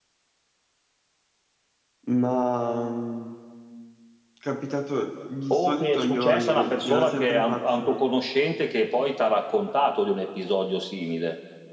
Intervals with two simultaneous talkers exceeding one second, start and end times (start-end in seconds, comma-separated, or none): 5.5-8.0